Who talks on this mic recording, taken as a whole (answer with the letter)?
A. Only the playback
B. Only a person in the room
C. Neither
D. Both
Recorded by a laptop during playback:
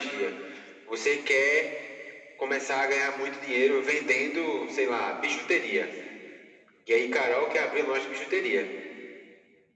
A